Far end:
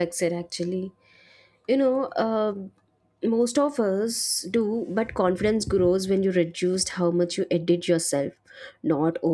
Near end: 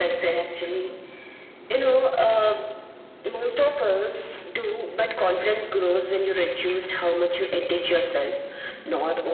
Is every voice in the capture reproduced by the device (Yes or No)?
Yes